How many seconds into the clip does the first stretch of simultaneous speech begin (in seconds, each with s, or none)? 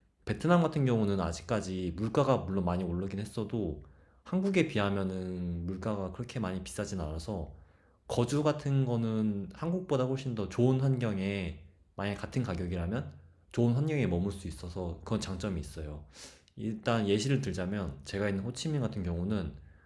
none